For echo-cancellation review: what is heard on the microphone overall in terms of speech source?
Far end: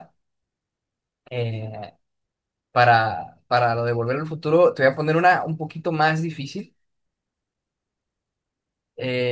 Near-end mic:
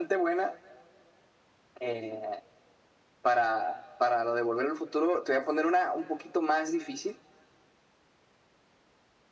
echo only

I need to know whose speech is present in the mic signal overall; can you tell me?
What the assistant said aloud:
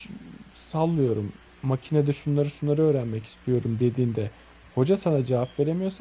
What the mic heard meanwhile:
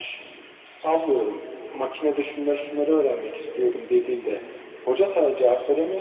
echo only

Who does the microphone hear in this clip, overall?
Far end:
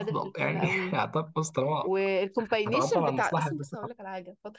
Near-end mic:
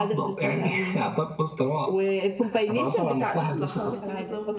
both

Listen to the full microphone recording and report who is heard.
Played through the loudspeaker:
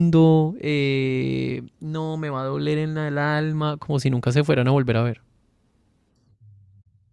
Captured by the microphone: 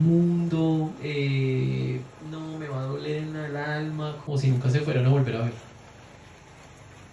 echo only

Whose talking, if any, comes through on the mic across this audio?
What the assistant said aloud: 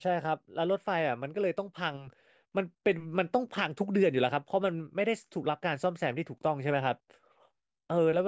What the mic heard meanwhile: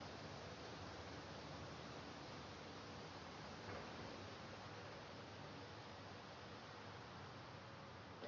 neither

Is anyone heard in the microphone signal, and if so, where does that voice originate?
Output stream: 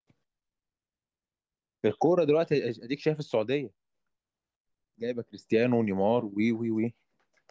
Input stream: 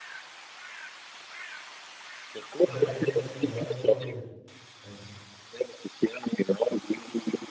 both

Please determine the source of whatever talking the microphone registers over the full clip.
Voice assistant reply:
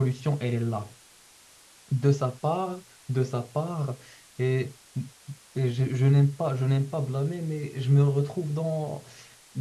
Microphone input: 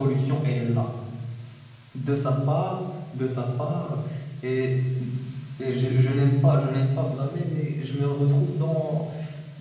echo only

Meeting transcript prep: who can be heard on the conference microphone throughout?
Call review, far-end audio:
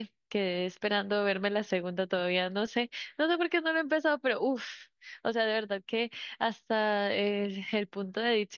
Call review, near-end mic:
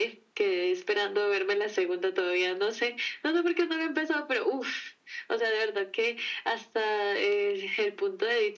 echo only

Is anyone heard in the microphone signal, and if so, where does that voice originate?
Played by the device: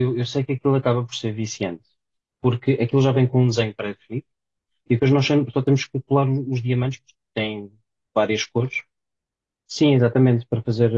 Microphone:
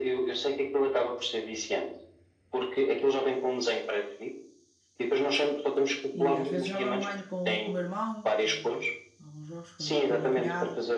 both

